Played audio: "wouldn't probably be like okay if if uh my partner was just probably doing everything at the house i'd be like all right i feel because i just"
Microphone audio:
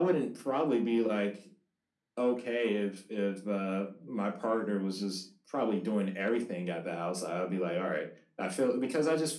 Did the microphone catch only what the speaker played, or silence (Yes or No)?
Yes